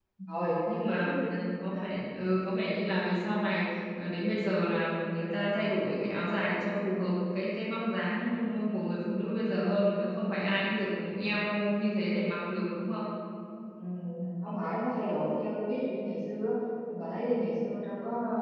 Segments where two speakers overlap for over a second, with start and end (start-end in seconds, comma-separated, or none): none